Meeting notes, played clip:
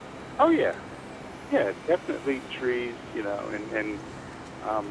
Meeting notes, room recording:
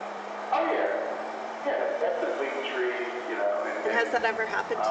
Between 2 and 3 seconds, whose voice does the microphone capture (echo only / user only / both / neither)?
echo only